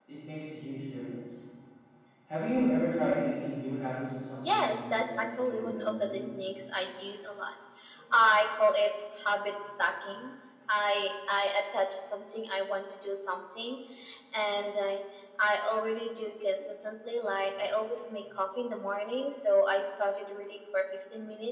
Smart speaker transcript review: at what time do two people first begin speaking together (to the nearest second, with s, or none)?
4 s